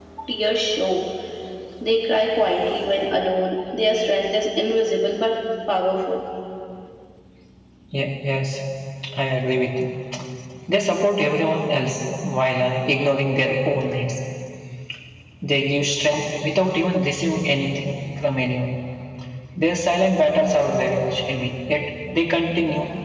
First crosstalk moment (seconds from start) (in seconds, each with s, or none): none